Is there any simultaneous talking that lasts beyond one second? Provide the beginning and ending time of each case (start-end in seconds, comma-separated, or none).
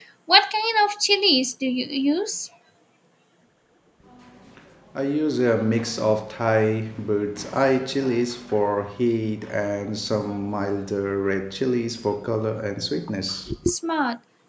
none